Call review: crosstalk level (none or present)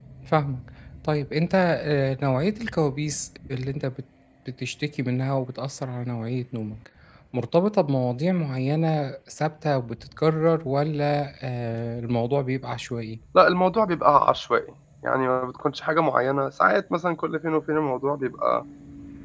none